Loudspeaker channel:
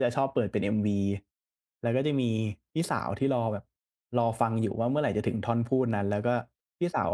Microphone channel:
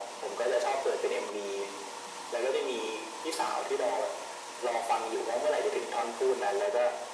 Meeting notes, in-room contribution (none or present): none